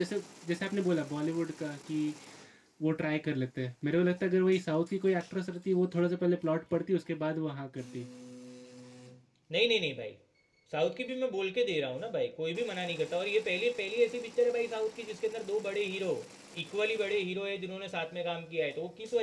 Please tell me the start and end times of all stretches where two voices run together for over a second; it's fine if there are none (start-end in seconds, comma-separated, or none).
none